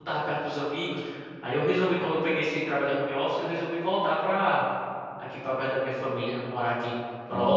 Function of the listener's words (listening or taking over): listening